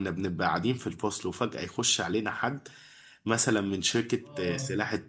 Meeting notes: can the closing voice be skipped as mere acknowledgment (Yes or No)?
Yes